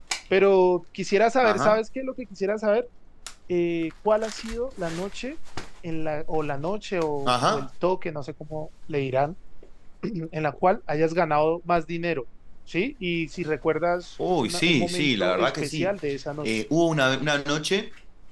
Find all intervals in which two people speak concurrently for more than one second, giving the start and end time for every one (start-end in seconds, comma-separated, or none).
14.4-15.9